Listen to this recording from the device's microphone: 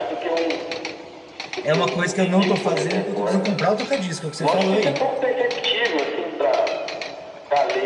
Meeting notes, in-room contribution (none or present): present